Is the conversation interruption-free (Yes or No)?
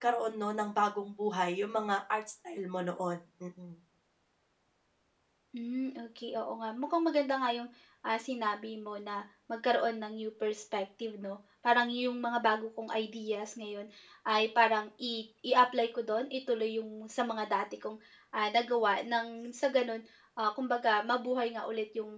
Yes